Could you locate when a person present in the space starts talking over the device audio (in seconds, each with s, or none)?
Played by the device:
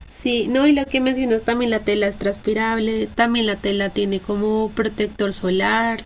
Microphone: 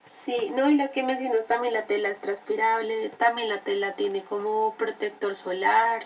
none